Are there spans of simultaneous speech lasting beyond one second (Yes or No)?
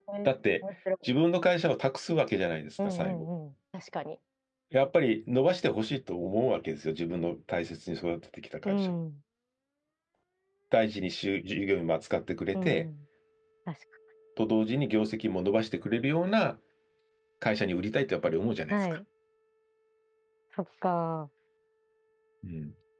No